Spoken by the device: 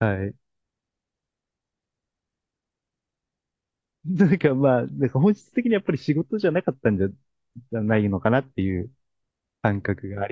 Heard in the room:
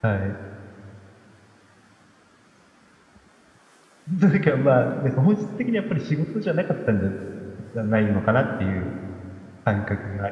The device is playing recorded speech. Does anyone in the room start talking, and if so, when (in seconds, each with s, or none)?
none